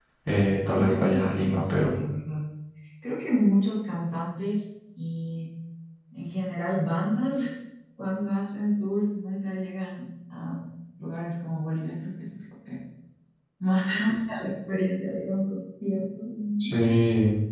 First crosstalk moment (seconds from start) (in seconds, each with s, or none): 0.7 s